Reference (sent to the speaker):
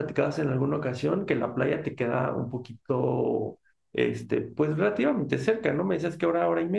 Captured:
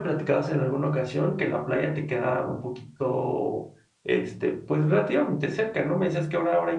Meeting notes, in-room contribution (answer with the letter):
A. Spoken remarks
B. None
B